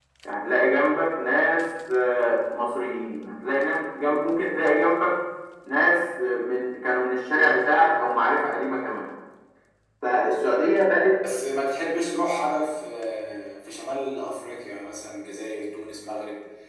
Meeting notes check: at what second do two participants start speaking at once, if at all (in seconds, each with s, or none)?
none